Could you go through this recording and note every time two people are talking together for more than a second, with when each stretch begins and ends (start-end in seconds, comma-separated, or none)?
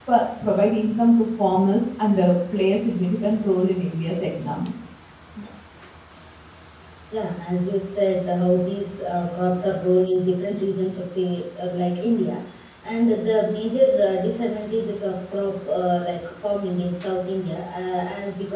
none